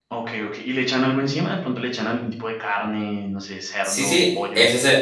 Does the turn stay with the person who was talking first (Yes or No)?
No